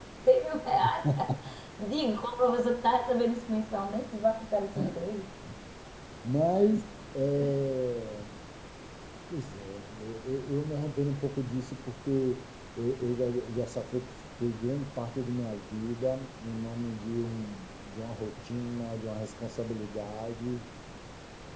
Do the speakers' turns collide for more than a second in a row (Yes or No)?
No